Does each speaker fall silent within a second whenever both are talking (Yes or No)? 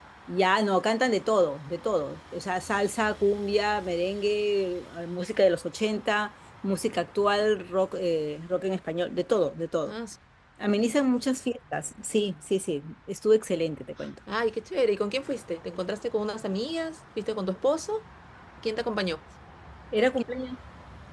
Yes